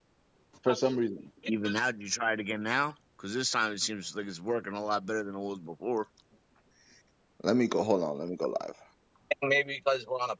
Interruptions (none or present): none